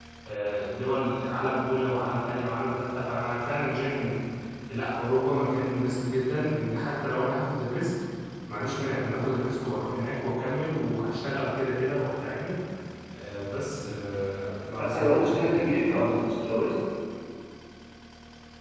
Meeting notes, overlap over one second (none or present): present